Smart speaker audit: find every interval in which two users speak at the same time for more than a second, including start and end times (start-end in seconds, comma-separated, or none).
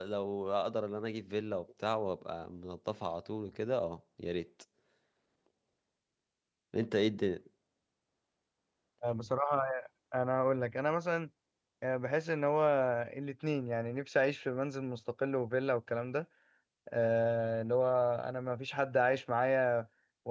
none